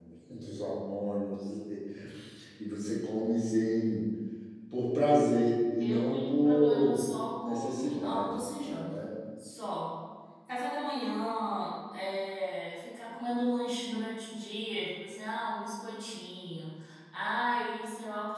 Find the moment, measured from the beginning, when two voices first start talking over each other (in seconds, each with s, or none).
5.8 s